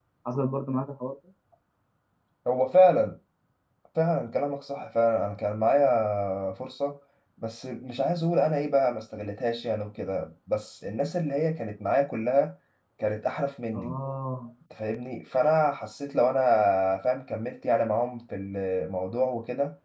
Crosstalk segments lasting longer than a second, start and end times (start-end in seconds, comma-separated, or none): none